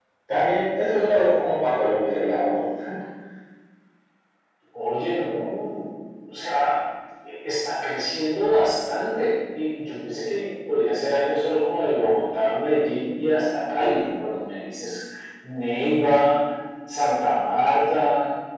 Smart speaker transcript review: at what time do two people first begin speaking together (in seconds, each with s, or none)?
none